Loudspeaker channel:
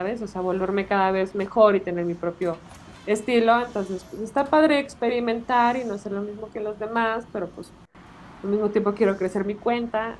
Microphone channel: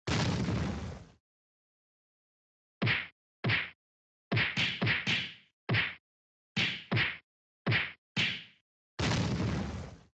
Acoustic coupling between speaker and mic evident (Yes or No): No